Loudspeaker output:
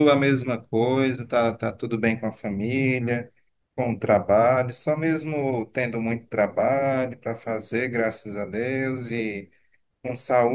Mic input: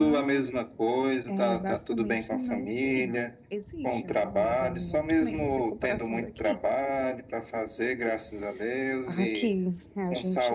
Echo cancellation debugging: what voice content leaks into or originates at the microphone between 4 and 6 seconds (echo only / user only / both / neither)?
both